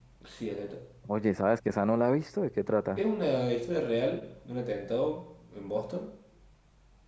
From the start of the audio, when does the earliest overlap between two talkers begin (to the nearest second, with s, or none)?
none